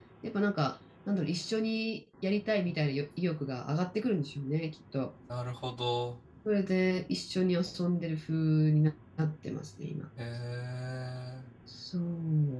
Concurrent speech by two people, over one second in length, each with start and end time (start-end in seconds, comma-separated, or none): none